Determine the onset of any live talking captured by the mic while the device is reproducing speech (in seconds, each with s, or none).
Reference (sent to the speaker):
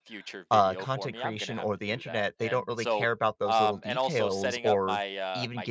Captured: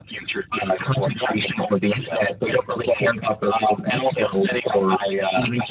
none